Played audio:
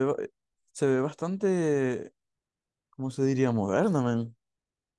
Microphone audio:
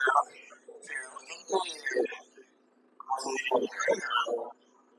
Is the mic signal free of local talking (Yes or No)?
Yes